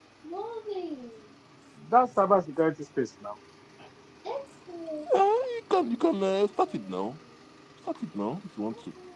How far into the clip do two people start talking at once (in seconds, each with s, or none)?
none